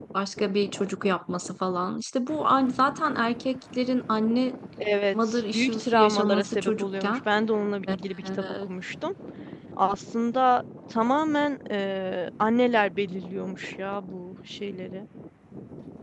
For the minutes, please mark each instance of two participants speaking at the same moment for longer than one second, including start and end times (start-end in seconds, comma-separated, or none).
5.3-7.2